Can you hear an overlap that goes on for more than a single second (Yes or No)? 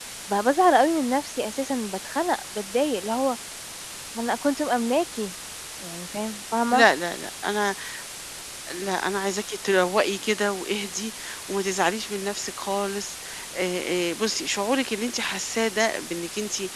No